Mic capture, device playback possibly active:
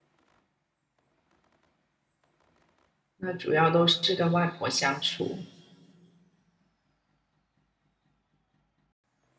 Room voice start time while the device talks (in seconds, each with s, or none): 3.1 s